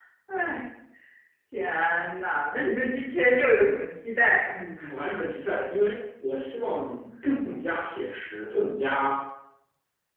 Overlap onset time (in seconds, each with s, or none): none